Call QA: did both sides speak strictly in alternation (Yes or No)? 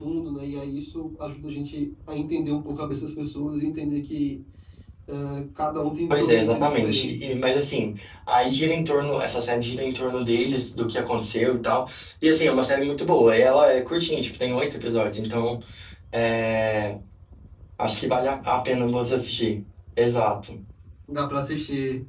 No